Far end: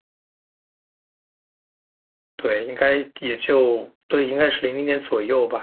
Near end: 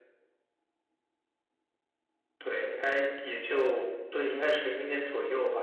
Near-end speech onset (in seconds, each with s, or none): none